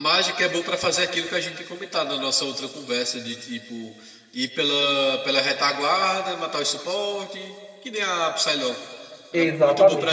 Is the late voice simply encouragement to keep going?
No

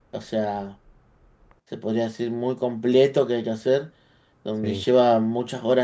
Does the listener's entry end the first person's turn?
No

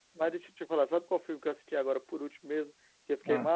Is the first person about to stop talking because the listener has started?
No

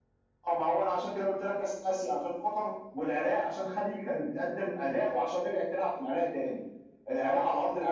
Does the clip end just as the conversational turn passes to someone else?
No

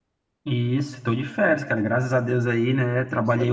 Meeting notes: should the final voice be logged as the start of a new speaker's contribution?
No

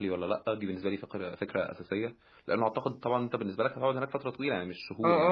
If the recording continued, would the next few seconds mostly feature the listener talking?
Yes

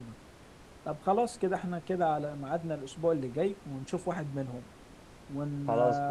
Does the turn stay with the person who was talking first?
Yes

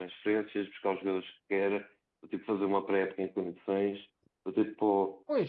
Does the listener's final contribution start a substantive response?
No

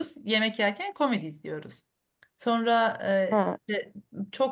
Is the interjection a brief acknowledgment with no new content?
Yes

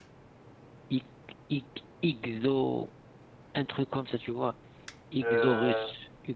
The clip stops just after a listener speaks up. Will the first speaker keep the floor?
Yes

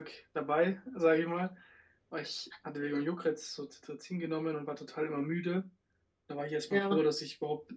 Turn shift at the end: No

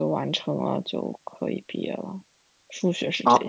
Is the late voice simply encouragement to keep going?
No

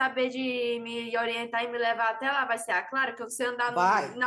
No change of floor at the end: Yes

